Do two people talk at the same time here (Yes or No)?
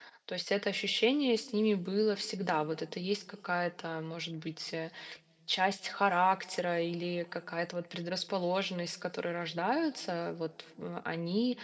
No